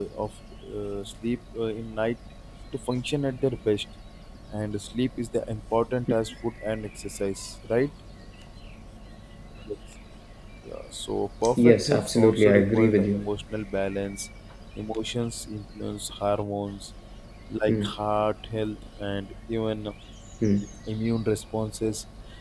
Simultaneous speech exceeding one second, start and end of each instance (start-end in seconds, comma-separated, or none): 11.6-13.2